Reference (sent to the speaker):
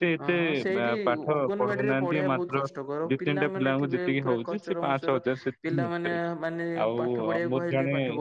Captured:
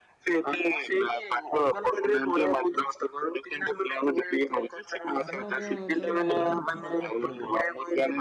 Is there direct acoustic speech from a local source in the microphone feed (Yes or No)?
Yes